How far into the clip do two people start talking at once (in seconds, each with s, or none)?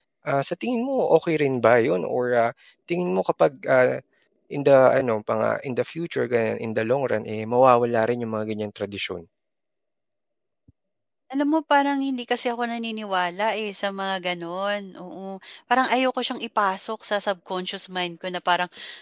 none